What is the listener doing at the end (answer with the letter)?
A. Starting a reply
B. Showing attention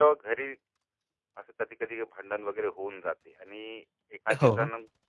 B